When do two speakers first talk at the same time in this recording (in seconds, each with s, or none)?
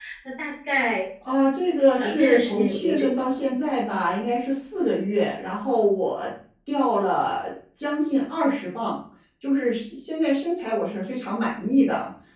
2.0 s